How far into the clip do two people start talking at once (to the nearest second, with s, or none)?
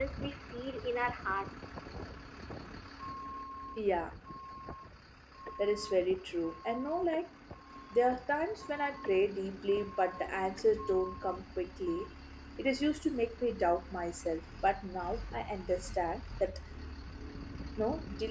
none